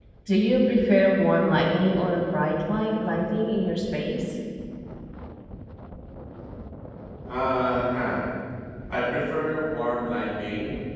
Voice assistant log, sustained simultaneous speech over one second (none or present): none